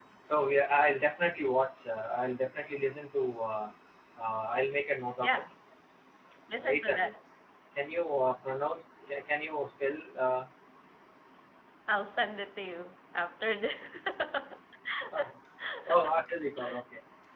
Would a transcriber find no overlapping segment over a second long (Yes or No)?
Yes